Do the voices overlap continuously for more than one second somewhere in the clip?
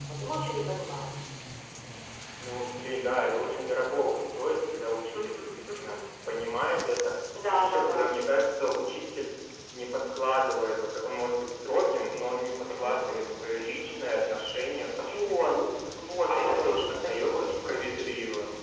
Yes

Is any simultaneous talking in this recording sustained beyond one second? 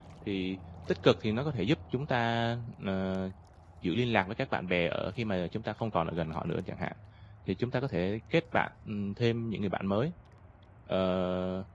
No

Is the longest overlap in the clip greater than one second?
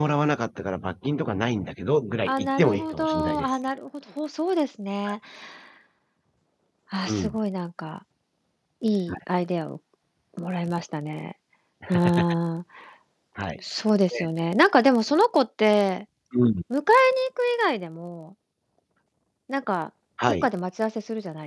Yes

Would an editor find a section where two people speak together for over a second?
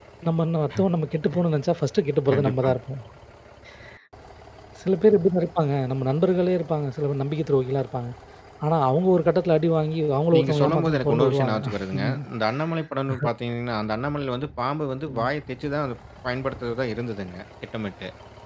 Yes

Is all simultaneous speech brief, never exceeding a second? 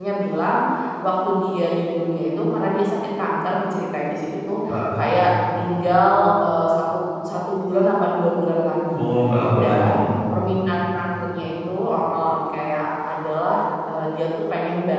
Yes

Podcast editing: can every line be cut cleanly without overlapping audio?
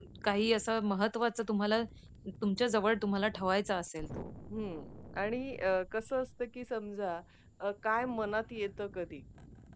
Yes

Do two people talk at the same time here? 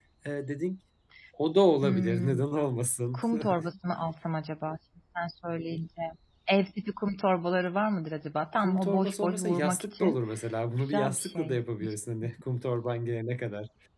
Yes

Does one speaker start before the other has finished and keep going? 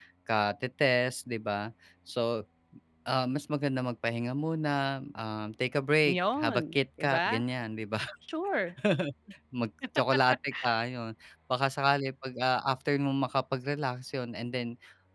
Yes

